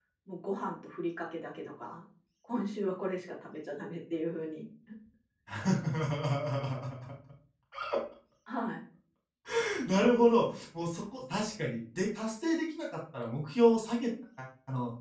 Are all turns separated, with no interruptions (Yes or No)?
Yes